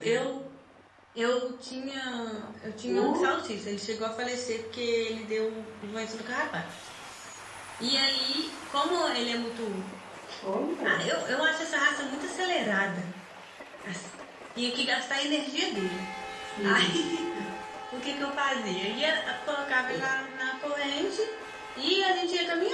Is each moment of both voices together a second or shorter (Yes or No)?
Yes